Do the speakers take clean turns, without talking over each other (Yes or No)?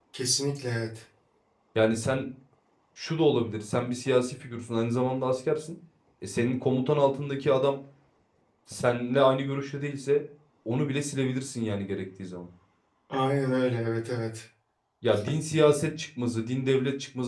Yes